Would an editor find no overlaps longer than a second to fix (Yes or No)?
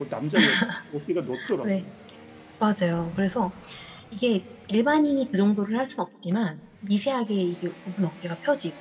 Yes